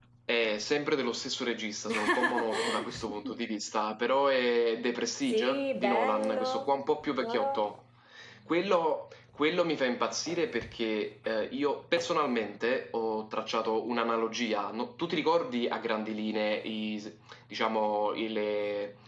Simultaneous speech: Yes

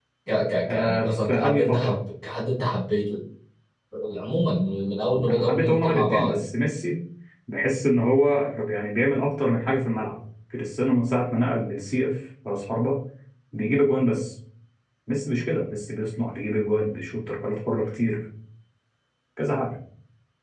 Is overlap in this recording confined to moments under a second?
No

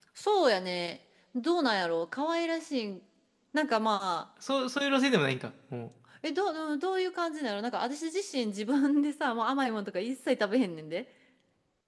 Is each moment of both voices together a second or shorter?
Yes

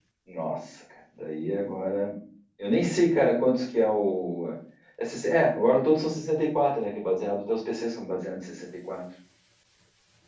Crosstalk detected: No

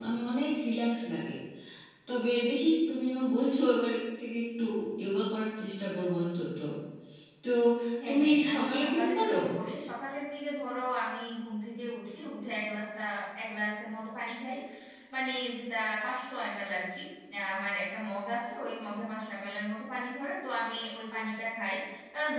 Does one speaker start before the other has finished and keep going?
Yes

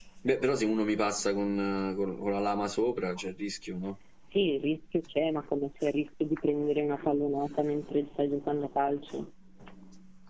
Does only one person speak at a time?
Yes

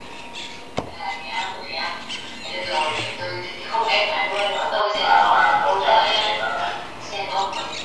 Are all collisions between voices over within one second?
No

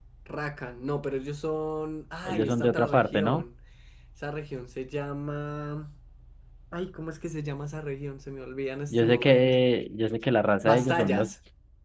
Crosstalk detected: Yes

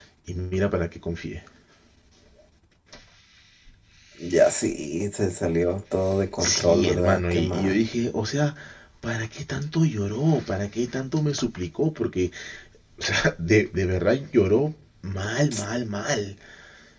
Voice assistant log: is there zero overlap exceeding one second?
No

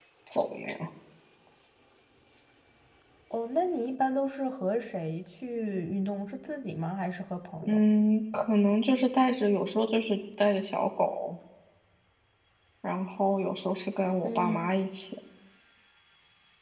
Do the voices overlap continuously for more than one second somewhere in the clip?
No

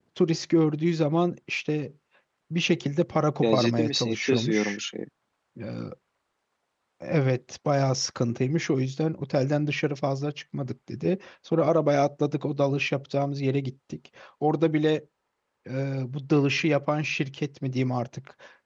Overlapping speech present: Yes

